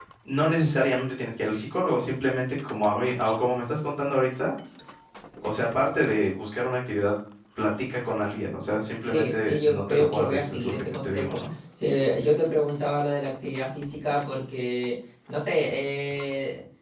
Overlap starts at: 9.0 s

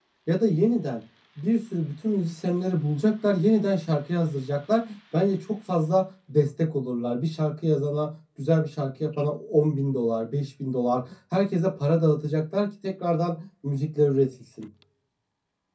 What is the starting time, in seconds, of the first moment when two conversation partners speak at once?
none

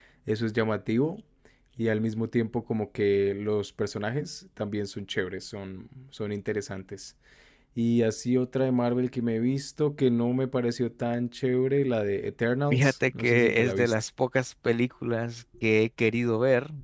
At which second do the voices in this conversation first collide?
12.7 s

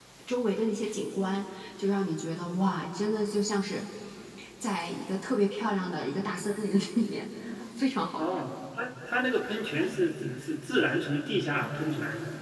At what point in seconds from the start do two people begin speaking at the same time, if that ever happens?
none

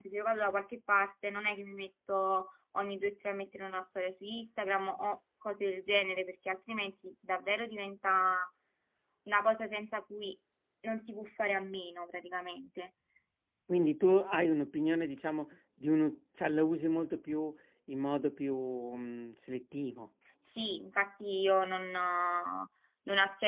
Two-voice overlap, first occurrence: none

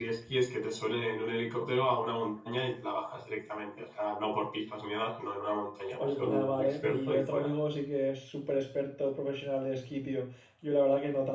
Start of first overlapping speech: 6.0 s

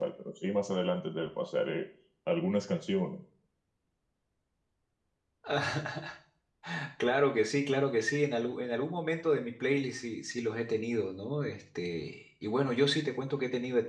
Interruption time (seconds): none

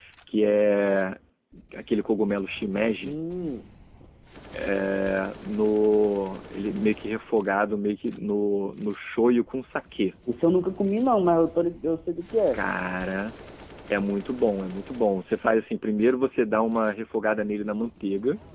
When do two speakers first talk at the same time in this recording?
none

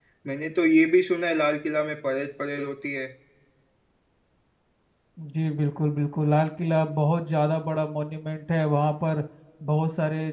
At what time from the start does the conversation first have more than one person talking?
none

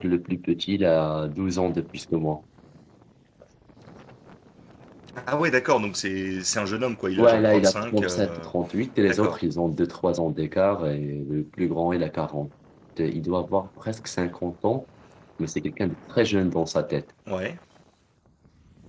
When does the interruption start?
7.2 s

